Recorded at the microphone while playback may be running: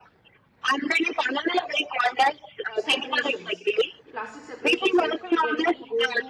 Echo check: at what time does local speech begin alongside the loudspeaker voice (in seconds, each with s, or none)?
2.7 s